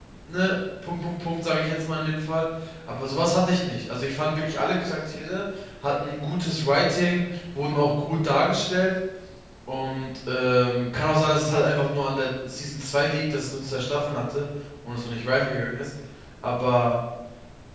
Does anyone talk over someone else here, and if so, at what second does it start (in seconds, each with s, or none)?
none